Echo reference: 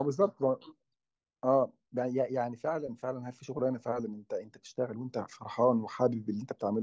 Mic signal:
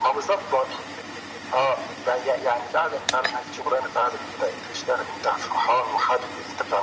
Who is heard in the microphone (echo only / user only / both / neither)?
echo only